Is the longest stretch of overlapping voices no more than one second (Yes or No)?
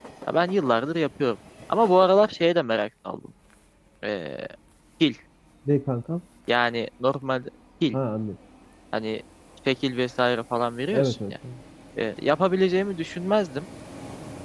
Yes